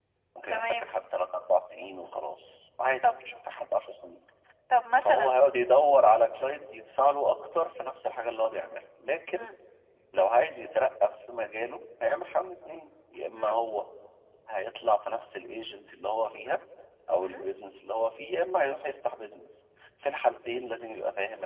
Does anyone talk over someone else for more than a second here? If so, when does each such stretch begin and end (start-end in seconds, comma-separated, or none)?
none